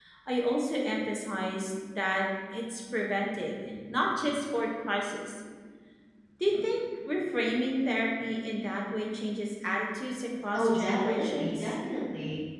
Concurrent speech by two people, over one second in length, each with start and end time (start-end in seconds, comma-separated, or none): 10.5-11.7